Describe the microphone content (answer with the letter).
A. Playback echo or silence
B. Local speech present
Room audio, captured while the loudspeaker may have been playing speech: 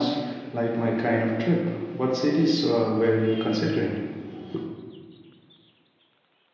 A